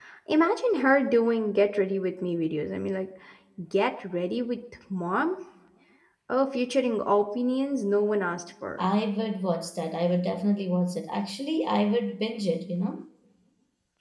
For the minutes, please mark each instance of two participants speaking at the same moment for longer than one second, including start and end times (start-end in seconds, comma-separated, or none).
none